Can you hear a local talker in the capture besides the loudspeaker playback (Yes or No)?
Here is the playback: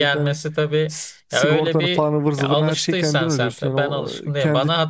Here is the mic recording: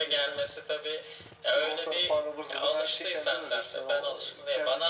No